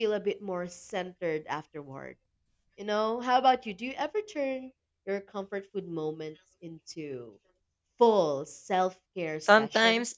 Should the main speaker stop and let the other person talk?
Yes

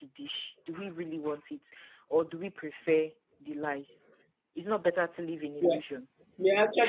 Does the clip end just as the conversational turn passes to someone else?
Yes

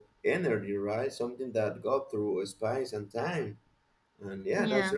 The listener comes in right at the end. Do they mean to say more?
No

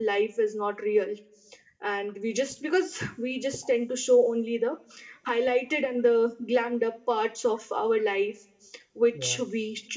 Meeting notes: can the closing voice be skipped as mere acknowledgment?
Yes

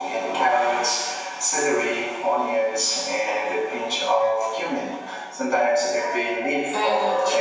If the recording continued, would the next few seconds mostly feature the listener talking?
Yes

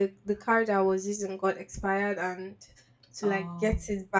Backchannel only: Yes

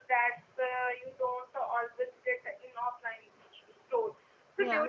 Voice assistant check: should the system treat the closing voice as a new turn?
No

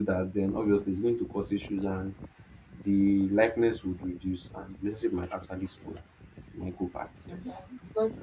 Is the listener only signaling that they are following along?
No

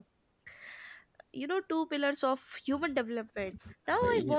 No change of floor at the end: Yes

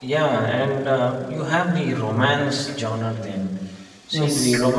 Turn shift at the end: No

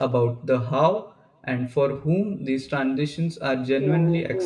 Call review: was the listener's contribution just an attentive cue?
No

